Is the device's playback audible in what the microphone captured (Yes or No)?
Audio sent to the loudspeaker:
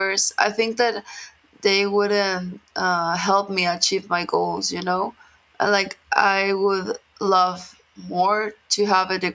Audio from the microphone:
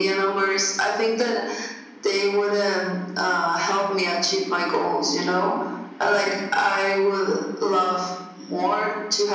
Yes